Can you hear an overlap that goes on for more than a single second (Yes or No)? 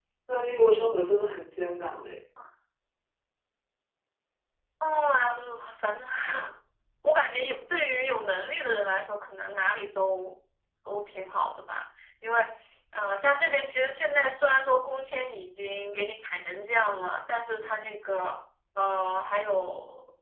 No